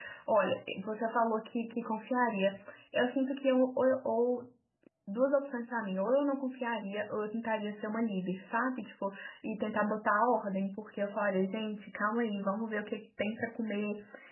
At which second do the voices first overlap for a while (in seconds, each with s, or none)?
none